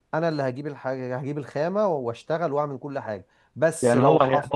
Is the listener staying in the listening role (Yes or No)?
No